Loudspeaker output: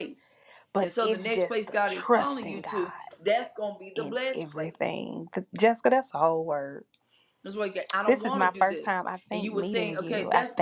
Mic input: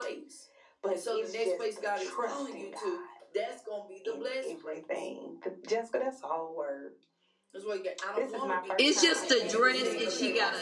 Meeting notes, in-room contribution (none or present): present